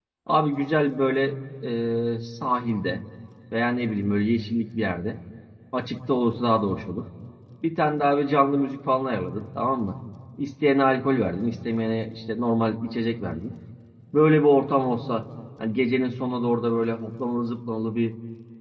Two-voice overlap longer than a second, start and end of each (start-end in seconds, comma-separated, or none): none